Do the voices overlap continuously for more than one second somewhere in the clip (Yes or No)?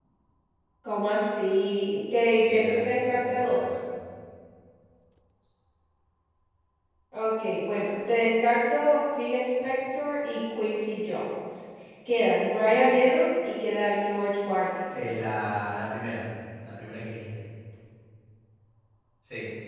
Yes